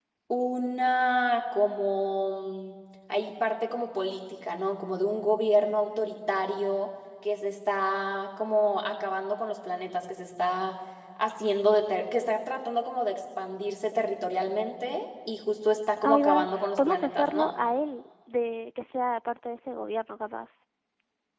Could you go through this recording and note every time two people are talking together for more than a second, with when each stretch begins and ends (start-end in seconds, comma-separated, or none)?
16.0-17.5